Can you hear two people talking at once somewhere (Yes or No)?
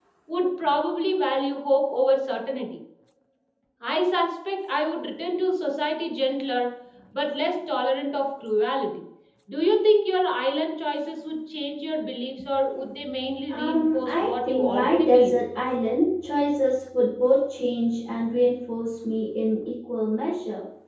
Yes